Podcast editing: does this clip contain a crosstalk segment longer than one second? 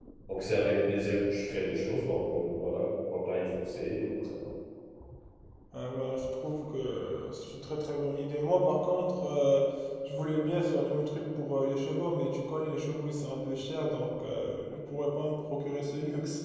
No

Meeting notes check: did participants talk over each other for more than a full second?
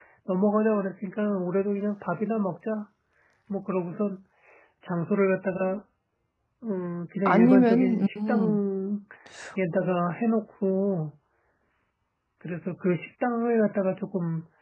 Yes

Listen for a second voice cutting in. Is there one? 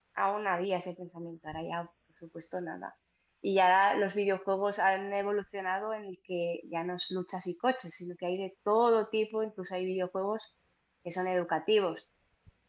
No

